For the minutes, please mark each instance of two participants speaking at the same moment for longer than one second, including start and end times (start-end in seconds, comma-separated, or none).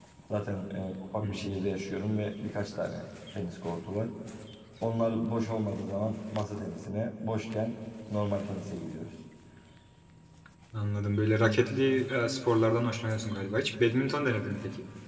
none